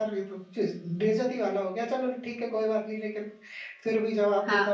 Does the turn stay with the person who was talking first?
No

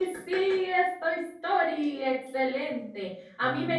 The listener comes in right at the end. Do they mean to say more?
No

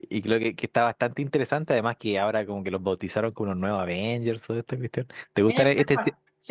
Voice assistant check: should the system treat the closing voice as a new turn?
Yes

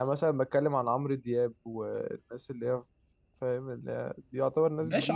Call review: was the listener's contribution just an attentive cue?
No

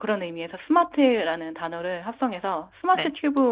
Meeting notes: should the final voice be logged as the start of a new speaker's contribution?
No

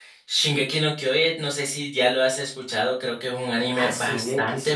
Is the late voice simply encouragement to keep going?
No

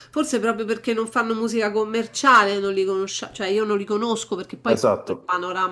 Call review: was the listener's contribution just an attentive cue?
Yes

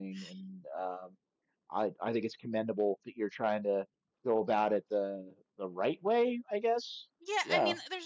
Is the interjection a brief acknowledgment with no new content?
No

